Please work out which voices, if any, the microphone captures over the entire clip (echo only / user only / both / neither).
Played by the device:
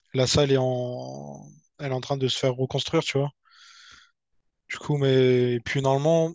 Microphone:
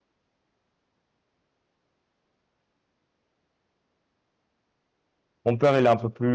user only